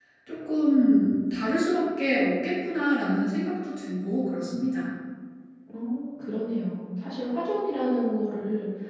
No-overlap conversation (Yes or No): Yes